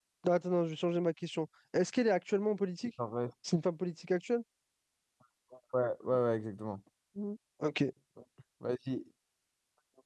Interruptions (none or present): none